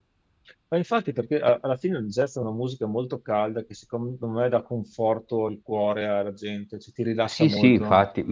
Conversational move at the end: taking over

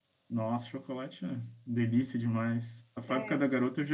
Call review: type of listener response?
listening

